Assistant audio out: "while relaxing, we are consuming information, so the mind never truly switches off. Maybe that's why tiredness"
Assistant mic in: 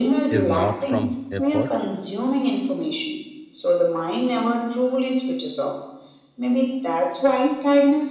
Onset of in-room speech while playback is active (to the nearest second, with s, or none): 0 s